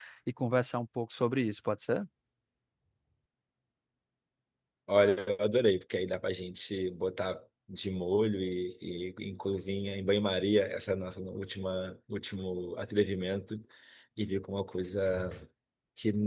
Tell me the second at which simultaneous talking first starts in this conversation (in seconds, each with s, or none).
none